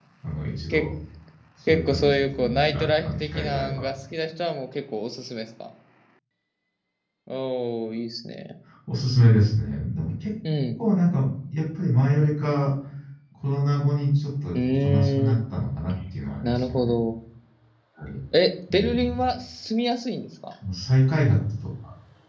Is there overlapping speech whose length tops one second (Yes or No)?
Yes